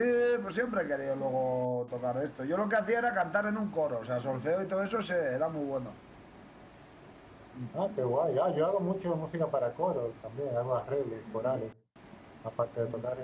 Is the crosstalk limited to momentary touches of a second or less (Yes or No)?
Yes